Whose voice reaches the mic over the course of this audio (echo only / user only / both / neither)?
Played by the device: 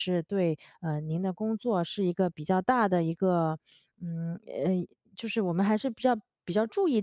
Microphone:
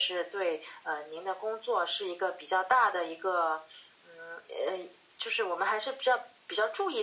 echo only